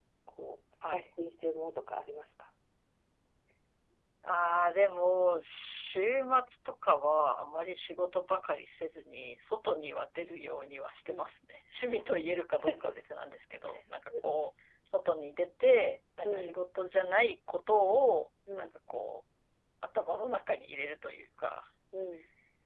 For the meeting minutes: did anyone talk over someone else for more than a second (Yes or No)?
No